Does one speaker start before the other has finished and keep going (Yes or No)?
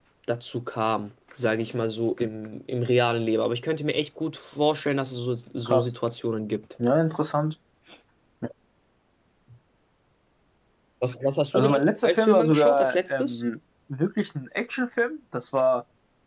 Yes